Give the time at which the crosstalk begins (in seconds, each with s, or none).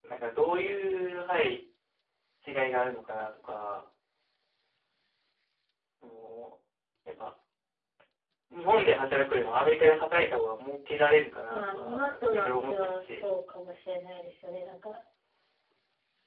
11.5 s